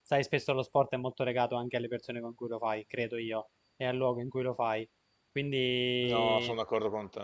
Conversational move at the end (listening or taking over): taking over